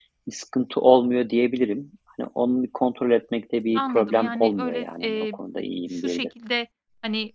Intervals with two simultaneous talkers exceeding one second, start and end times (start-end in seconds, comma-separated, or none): 3.8-5.4